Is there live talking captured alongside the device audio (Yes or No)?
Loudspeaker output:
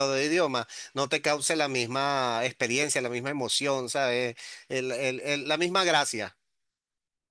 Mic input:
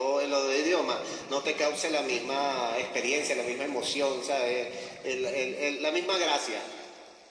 No